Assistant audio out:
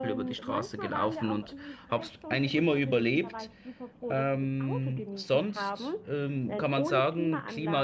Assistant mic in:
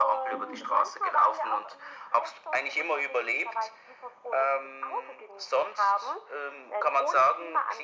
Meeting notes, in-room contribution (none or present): present